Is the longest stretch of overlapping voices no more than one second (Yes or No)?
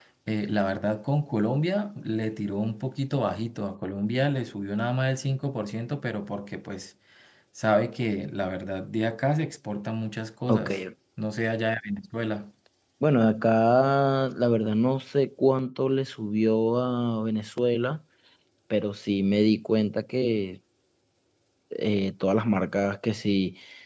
Yes